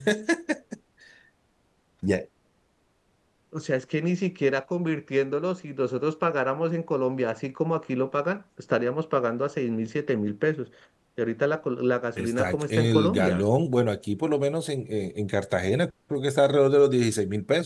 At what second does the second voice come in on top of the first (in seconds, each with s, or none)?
12.2 s